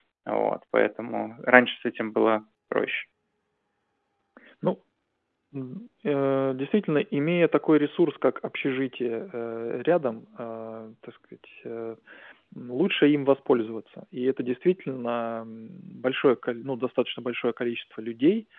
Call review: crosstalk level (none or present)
none